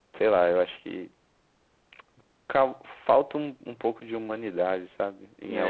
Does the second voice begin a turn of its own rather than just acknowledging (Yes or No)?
Yes